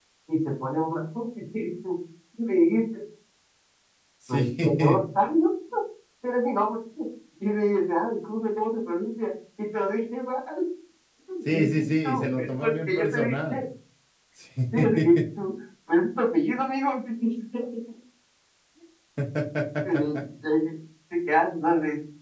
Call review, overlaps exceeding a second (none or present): present